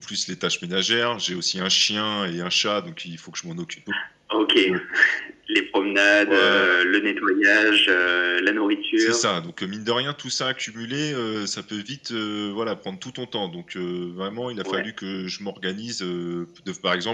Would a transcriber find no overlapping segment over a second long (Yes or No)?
Yes